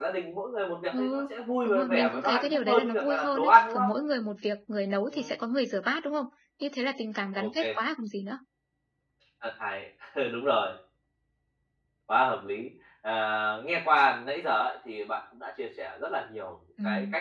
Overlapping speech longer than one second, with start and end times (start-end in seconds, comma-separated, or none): 1.6-3.9